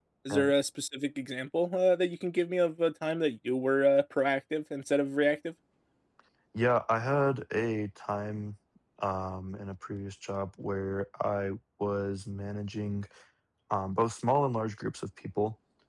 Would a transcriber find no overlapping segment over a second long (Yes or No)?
Yes